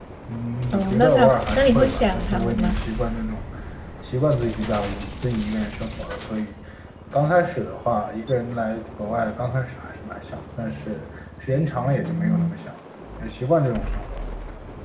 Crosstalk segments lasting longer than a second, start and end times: 0.7-2.8

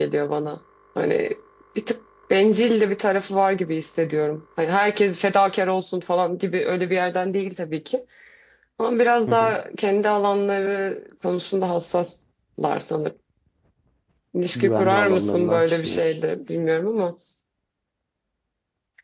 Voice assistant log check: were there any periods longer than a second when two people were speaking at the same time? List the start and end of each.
14.6-16.2

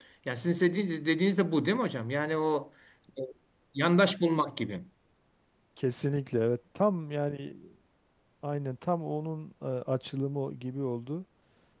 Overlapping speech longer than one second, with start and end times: none

